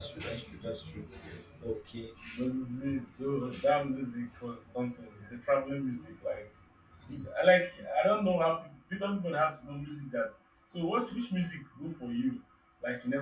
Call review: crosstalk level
none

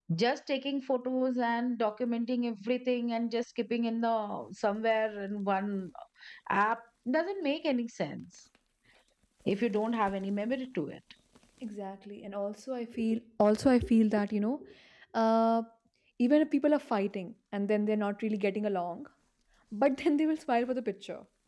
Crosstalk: none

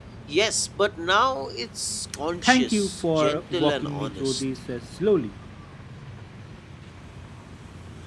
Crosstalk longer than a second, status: present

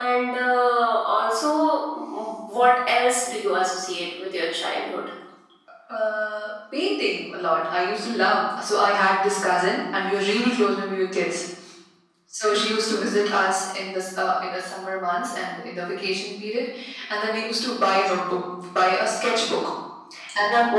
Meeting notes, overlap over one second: none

